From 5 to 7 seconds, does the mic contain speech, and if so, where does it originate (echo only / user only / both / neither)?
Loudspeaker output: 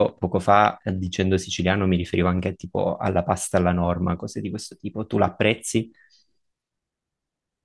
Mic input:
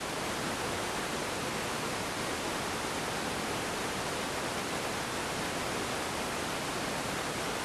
neither